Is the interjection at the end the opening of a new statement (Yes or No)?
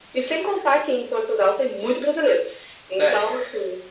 No